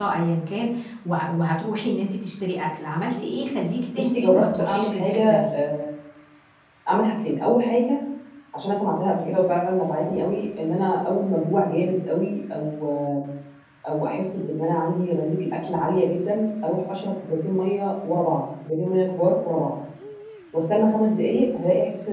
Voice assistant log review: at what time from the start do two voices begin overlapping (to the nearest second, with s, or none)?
4 s